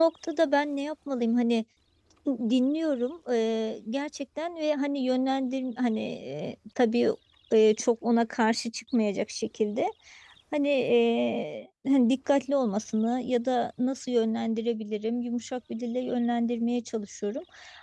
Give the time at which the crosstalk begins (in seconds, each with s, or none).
none